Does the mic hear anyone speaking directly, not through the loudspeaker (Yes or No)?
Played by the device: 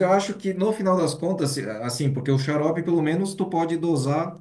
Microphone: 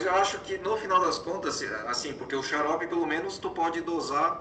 No